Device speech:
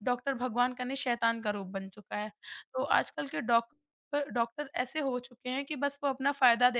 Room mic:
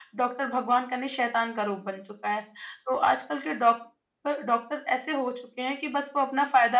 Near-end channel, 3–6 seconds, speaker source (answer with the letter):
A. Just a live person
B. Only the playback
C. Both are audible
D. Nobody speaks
B